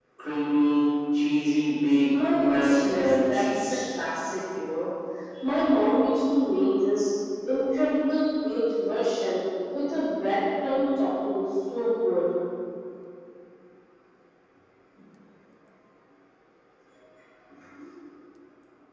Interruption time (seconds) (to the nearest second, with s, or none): 2 s